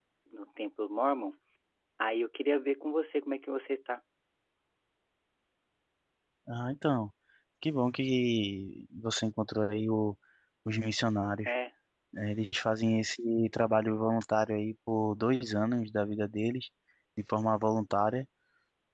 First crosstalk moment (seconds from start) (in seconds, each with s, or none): none